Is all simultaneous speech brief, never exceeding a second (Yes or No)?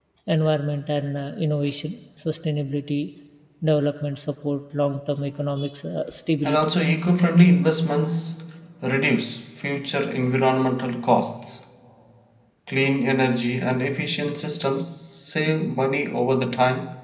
Yes